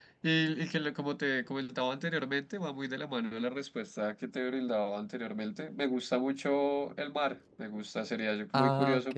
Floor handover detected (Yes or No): No